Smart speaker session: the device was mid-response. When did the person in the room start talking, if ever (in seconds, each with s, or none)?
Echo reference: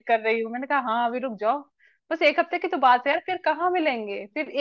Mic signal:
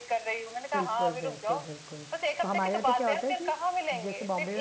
0.7 s